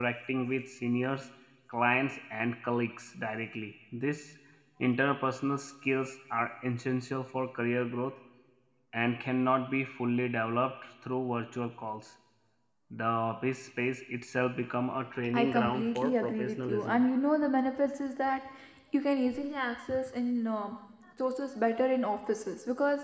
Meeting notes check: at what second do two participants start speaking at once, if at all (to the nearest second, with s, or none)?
15 s